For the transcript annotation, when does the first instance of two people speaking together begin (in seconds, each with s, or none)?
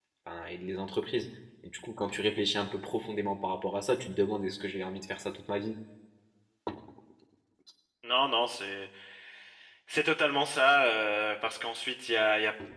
none